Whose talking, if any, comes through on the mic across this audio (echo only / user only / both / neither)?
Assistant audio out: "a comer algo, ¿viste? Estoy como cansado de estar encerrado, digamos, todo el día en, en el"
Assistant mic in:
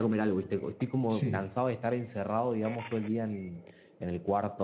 both